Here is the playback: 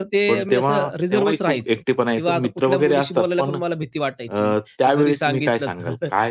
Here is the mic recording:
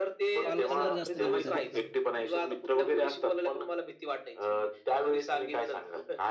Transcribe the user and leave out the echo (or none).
पालकांवर जास्त निर्धारित करतात त्या गोष्टी.